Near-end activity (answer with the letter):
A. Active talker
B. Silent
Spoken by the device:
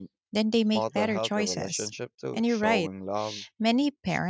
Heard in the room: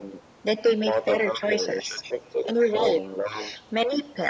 B